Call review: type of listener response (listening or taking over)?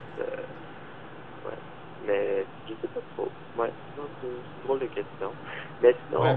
taking over